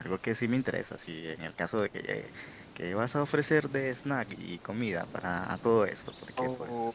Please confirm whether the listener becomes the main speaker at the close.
Yes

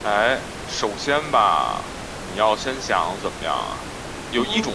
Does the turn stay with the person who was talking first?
Yes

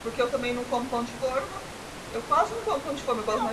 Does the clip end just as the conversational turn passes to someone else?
Yes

